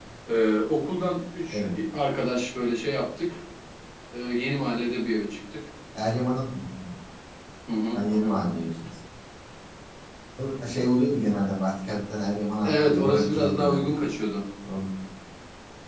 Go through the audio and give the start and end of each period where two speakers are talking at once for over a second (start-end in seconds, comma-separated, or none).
12.6-14.0